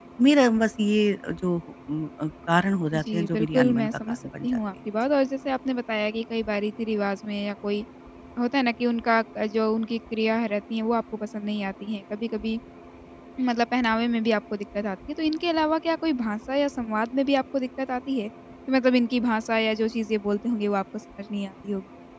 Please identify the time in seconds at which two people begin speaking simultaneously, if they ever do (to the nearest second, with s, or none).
3 s